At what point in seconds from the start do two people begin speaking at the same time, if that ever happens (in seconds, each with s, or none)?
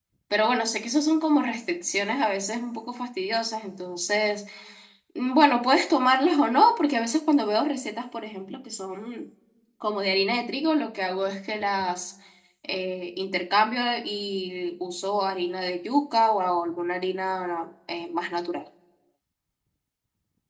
none